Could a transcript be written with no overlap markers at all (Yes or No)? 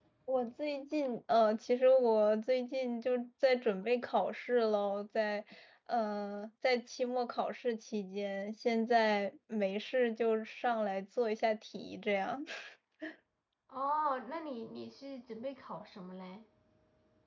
Yes